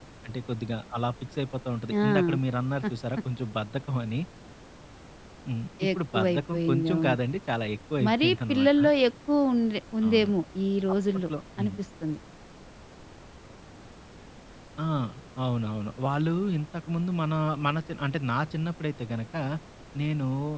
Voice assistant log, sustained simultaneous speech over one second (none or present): present